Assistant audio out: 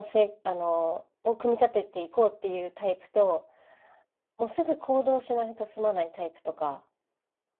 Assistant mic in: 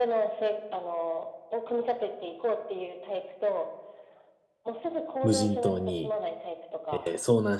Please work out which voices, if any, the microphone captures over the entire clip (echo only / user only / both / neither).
both